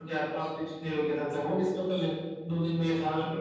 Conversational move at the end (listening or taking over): listening